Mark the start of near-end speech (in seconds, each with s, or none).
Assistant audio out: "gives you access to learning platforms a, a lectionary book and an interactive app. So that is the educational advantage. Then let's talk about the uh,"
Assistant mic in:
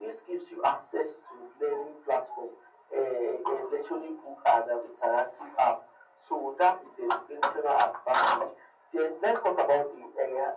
none